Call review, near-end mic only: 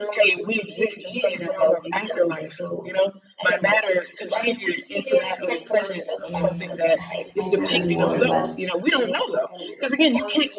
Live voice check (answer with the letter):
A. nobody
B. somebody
B